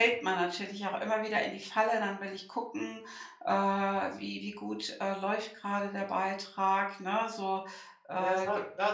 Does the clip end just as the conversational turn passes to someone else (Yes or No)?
Yes